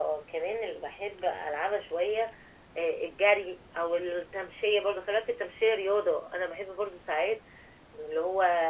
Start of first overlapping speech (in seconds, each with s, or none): none